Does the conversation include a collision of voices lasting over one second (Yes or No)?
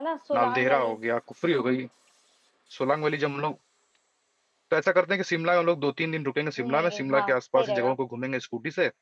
Yes